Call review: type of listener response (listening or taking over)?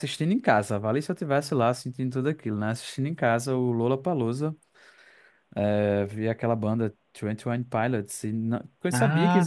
listening